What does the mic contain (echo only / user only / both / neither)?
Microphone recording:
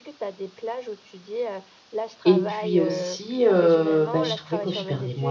both